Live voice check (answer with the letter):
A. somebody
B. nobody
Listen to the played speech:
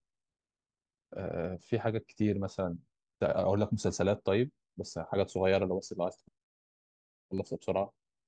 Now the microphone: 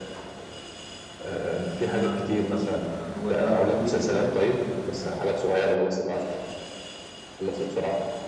A